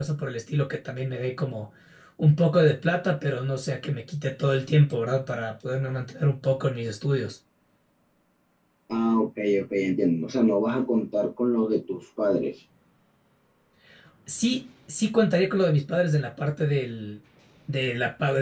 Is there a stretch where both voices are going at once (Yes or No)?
No